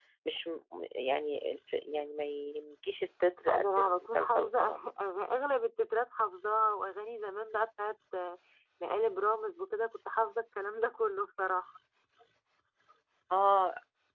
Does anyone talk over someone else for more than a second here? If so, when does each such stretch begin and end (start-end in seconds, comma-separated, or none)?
3.5-4.8